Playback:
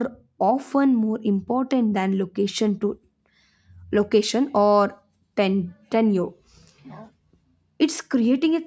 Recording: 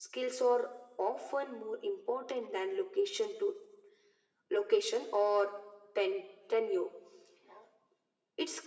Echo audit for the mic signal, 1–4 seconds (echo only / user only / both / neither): echo only